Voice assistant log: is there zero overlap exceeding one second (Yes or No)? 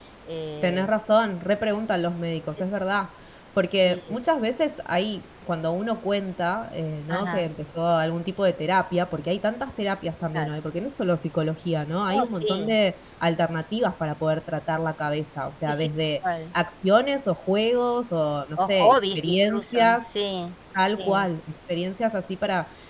No